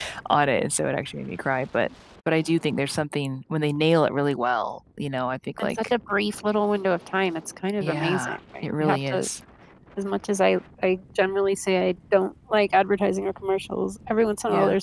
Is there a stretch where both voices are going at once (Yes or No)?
Yes